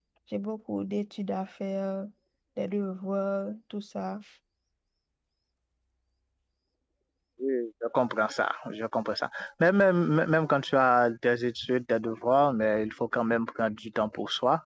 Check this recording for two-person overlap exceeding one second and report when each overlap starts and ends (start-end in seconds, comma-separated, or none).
none